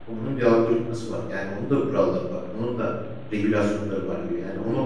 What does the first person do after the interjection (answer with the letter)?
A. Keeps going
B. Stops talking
B